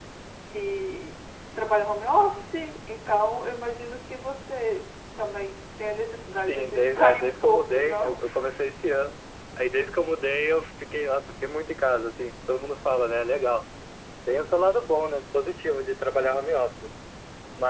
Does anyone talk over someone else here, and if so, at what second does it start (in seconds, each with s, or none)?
6.5 s